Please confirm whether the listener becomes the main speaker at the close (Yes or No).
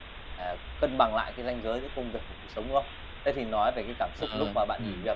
No